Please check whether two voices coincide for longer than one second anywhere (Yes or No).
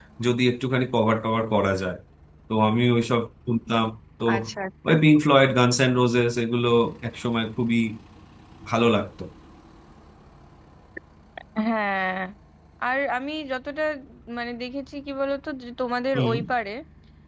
No